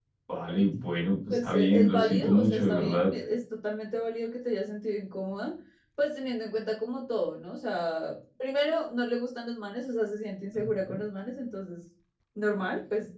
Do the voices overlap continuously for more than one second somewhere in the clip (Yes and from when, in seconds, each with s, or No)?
Yes, from 1.3 s